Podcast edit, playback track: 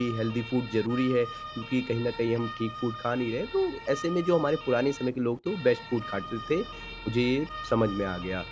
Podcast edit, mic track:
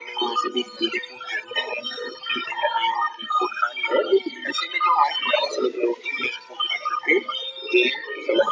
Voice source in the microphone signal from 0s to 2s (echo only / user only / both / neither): echo only